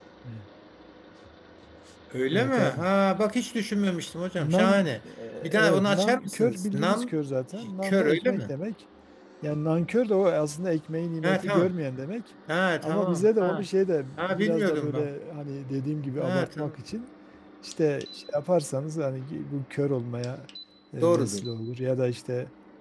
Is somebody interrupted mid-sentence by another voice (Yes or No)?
Yes